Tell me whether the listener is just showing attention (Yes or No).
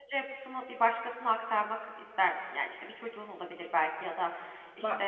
Yes